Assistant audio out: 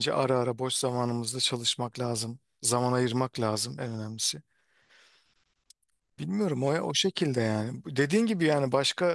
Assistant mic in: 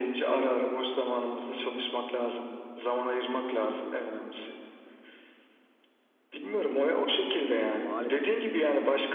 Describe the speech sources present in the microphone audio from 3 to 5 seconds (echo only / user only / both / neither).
echo only